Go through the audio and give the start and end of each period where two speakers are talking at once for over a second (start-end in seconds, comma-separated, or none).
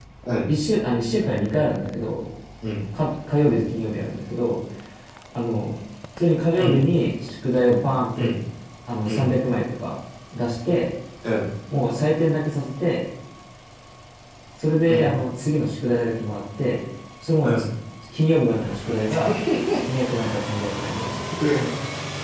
none